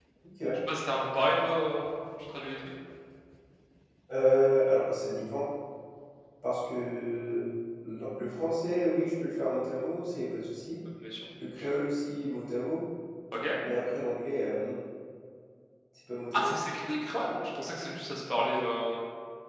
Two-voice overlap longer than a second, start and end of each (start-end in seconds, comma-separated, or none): none